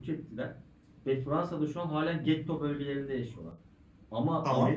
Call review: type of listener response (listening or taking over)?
listening